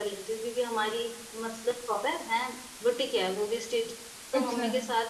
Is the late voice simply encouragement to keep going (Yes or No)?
Yes